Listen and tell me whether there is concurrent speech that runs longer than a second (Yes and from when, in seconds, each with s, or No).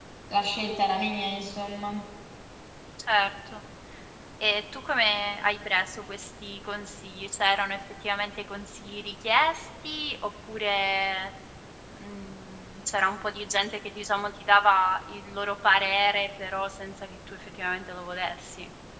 No